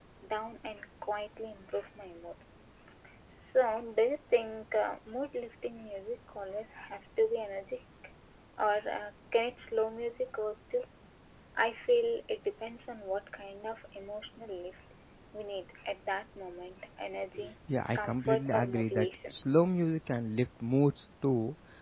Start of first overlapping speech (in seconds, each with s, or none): 17.9 s